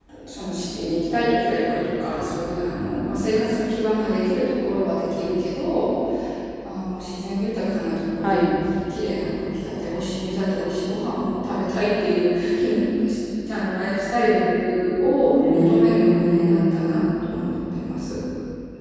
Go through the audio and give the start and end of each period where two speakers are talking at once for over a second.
15.5-17.0

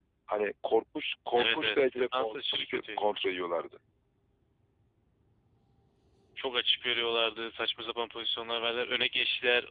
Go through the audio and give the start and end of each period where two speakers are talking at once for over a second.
1.4-3.1

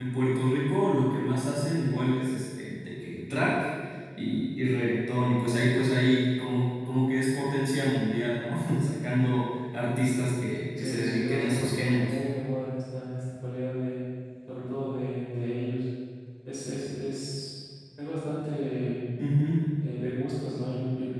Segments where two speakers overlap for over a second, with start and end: 10.8-12.2

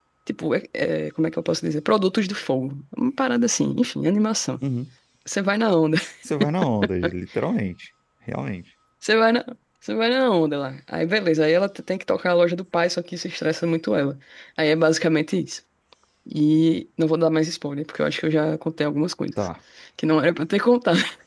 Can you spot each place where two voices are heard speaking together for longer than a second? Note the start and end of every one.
none

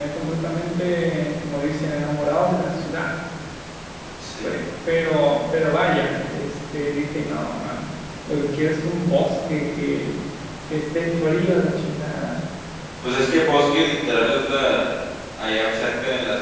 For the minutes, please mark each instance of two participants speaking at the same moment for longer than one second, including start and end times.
none

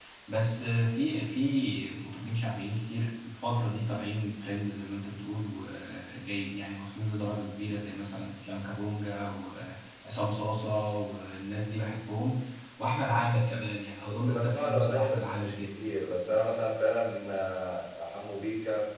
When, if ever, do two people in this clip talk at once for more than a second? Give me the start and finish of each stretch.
14.1-15.8

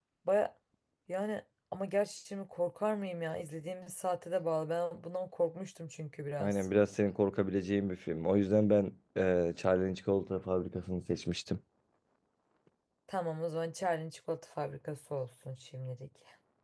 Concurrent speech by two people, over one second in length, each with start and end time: none

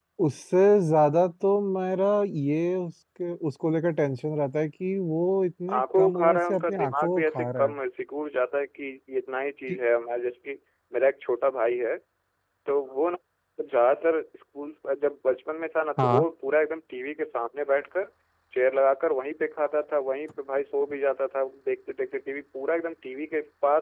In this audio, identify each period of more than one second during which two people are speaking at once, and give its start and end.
5.7-7.7

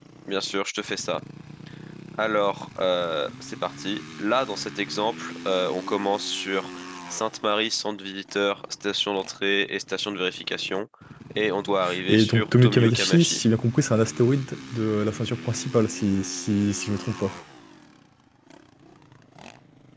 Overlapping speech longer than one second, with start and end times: 12.1-13.4

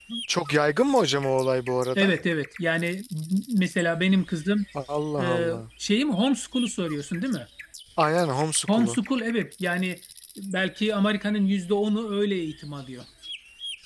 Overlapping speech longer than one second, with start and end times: none

